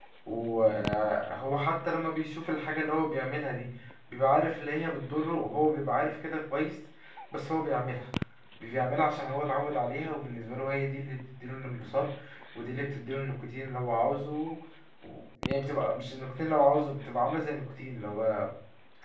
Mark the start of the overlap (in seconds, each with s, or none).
none